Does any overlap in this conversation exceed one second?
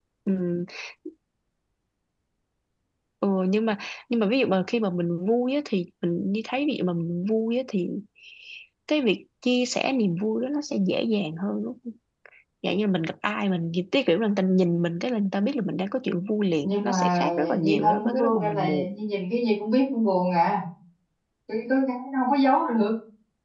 Yes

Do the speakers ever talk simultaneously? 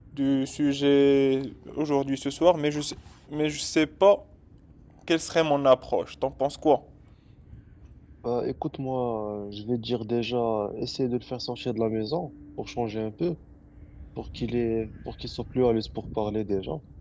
No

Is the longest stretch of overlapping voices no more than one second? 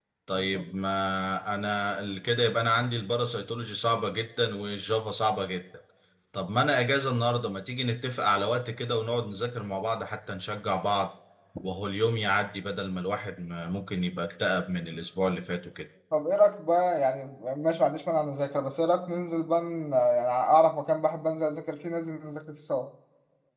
Yes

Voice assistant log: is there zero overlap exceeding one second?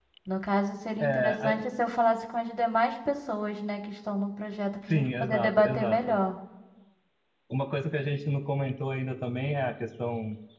No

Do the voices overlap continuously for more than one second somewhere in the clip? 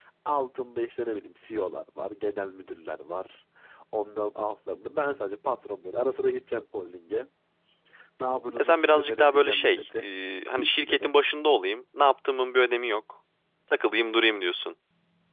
Yes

